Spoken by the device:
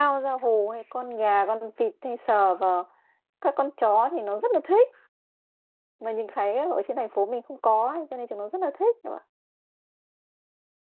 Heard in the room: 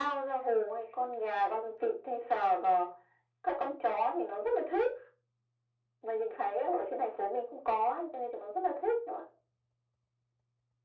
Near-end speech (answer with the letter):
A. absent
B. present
A